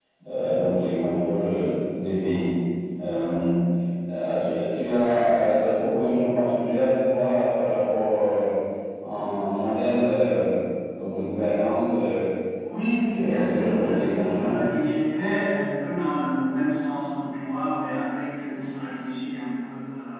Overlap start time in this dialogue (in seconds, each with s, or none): 13.1 s